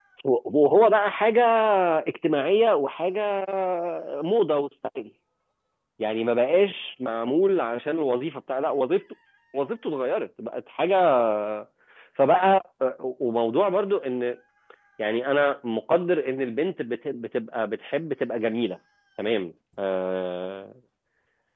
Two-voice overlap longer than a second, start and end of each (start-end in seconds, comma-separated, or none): none